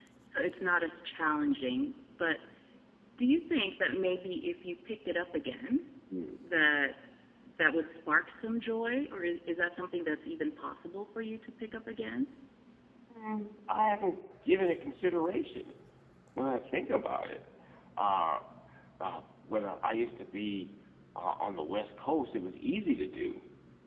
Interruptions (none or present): none